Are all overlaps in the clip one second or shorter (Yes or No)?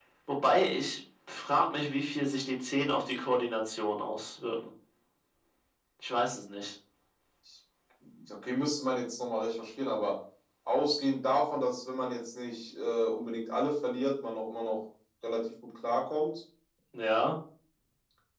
Yes